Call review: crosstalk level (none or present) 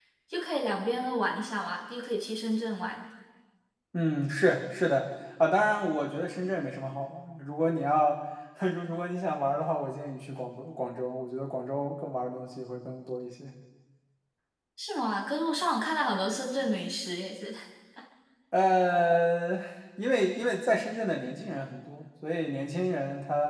none